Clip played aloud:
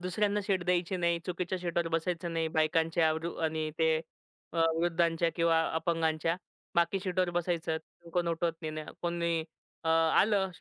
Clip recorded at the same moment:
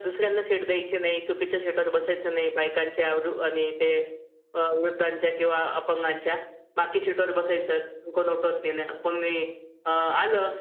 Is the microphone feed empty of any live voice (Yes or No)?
Yes